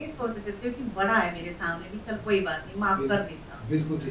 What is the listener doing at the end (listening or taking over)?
taking over